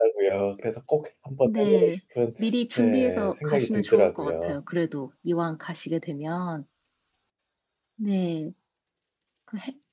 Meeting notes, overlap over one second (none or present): present